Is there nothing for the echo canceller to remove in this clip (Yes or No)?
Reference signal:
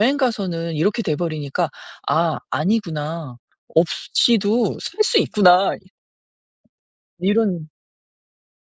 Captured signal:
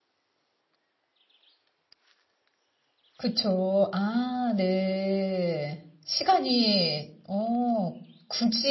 Yes